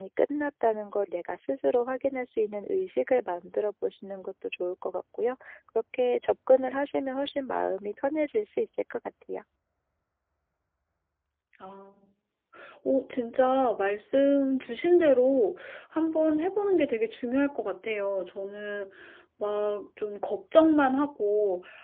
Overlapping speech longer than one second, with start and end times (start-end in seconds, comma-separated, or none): none